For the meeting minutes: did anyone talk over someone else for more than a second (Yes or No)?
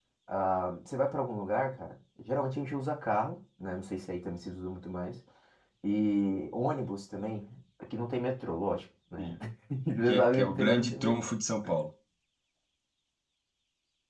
Yes